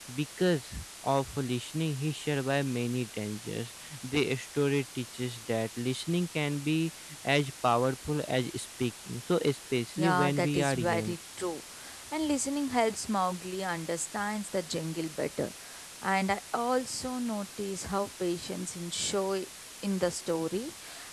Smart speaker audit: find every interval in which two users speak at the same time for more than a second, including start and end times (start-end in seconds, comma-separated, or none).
10.0-11.2